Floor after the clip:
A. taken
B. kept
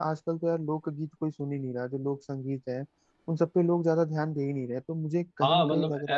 A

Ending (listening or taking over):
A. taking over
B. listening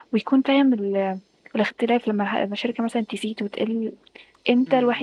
A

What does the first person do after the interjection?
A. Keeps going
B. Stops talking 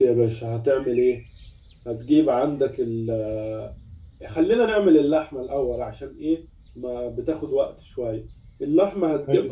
A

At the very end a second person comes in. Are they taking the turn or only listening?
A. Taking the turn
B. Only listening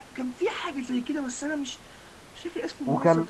A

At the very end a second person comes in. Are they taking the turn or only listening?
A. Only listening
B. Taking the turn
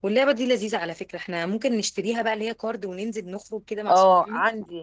B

